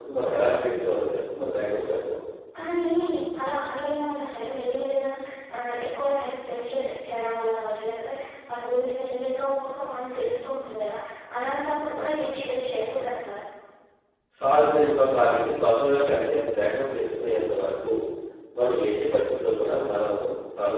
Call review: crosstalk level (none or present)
none